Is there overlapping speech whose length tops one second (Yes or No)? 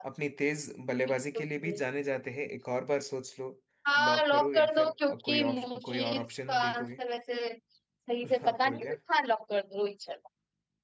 Yes